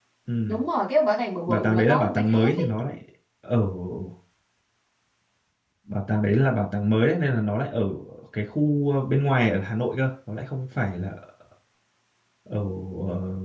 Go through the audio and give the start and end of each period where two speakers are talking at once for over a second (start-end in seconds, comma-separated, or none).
1.5-2.7